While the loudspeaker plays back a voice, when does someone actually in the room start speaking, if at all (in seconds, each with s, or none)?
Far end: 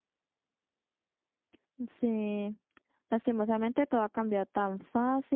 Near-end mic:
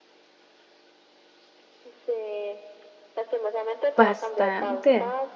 4.0 s